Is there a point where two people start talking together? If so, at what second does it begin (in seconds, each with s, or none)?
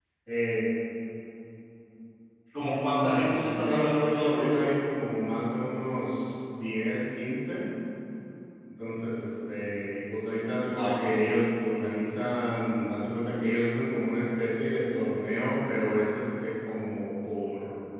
2.6 s